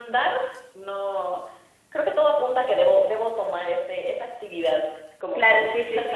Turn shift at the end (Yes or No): Yes